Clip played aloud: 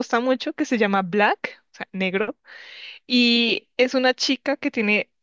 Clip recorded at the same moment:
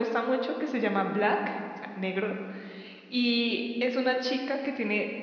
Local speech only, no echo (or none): none